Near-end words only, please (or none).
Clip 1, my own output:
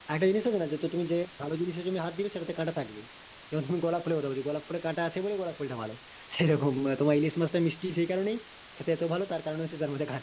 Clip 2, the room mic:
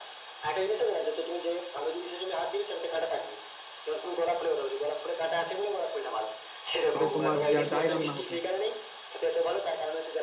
সেটা তোমার যা যাই রান্না হোক না কেন